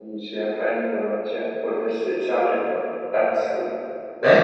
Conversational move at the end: taking over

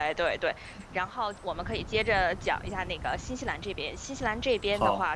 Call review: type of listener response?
listening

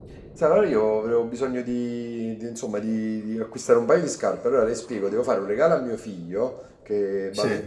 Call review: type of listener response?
listening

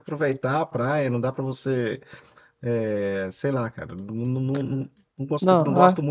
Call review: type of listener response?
listening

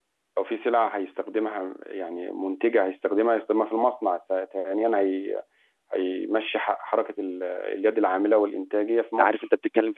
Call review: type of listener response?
taking over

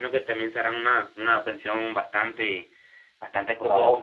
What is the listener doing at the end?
taking over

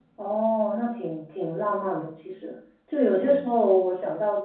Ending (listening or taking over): listening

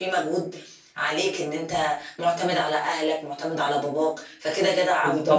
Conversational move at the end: taking over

